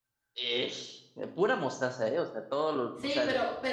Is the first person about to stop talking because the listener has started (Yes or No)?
Yes